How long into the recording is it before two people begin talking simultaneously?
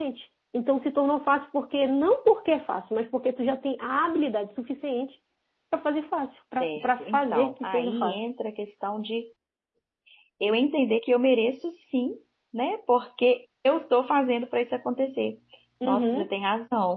6.6 s

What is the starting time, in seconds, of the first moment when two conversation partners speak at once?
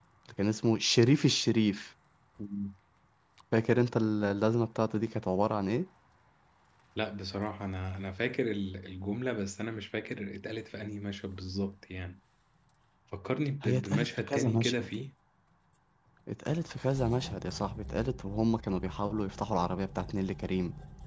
13.6 s

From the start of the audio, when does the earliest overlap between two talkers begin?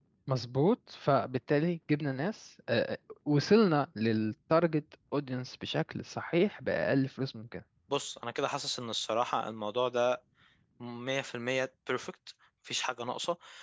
none

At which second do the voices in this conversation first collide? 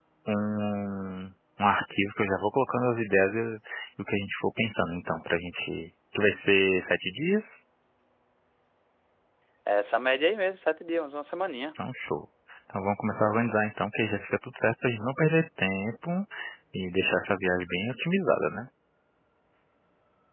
none

